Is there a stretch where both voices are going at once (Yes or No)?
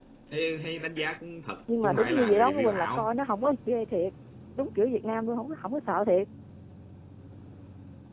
Yes